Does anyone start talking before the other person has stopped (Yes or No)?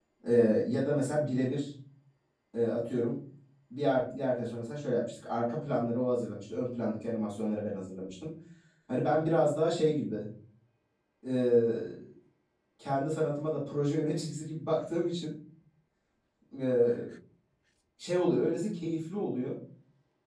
No